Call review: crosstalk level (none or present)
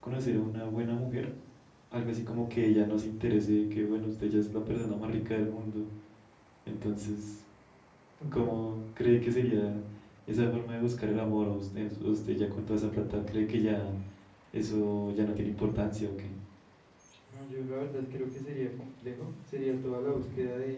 none